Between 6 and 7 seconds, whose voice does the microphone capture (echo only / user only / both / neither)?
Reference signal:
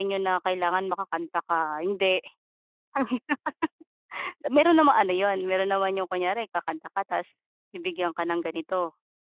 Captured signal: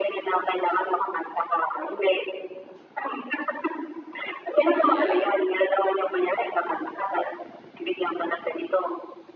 echo only